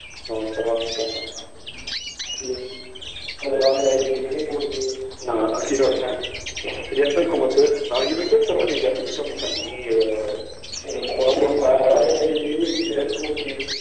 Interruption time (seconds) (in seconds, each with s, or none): 11.1 s